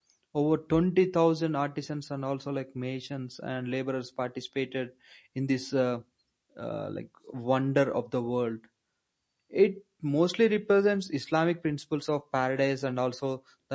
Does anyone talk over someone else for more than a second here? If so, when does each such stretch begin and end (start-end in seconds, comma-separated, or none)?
none